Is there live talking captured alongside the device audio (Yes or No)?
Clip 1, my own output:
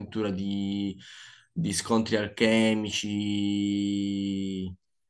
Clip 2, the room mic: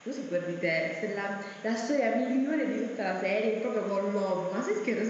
Yes